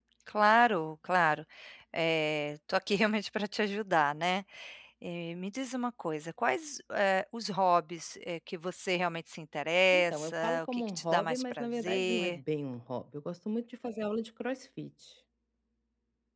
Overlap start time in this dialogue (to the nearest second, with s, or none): 10 s